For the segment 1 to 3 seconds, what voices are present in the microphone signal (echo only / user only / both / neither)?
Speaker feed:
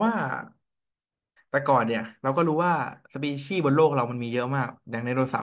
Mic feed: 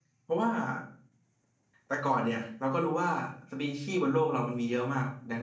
echo only